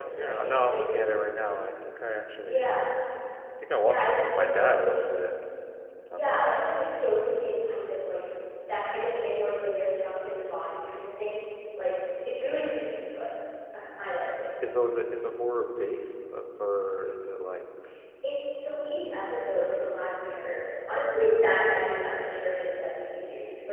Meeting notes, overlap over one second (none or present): present